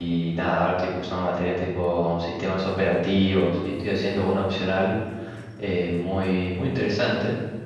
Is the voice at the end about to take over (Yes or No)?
No